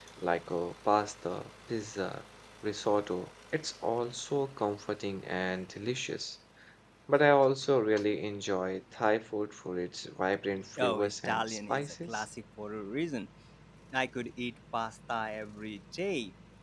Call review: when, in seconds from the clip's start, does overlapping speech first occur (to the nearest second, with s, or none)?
11 s